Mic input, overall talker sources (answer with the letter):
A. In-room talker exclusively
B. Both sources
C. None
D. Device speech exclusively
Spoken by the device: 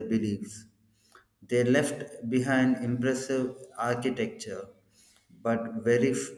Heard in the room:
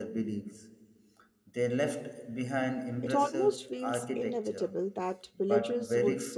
B